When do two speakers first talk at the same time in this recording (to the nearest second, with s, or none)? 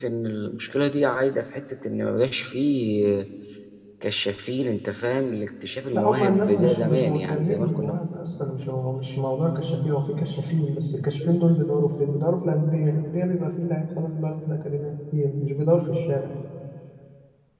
6 s